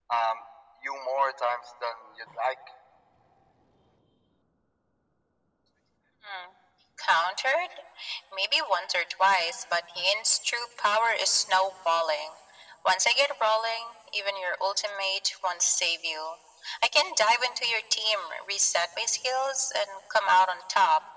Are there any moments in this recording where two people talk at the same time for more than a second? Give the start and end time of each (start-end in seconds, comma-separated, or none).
none